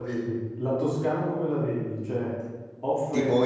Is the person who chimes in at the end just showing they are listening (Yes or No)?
No